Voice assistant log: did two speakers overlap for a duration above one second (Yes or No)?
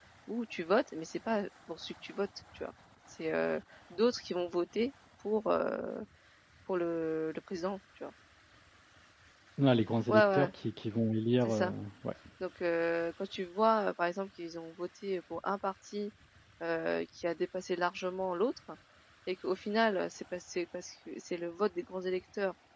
No